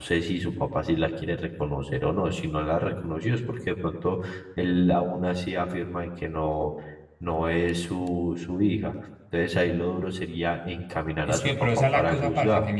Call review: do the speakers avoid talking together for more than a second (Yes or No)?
No